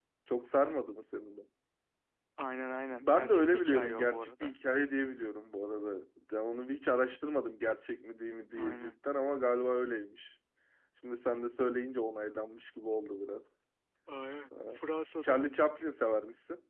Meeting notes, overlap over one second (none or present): present